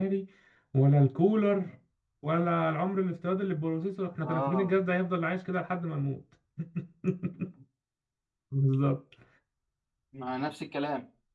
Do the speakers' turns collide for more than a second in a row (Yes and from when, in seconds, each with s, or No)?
No